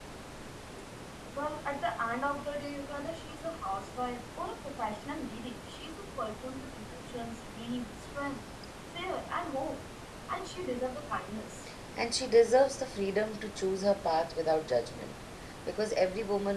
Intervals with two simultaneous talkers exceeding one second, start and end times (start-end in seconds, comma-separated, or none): none